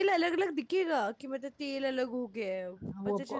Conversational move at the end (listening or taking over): taking over